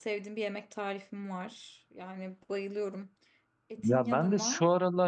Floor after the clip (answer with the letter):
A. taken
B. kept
A